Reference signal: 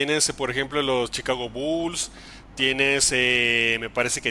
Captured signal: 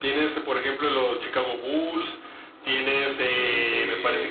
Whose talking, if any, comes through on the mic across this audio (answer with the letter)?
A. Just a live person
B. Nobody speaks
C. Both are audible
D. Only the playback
C